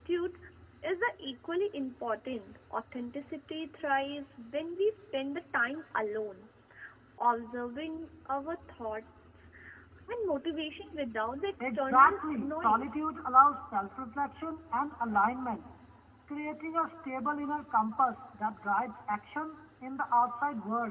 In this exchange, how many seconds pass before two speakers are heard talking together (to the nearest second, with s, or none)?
12 s